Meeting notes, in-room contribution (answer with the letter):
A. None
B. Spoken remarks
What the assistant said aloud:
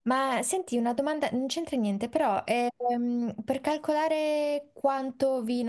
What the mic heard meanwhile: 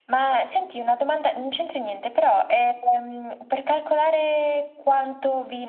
A